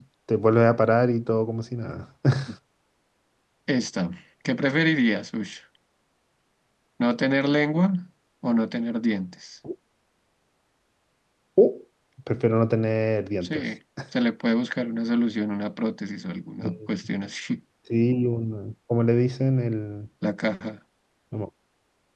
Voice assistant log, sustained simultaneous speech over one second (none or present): none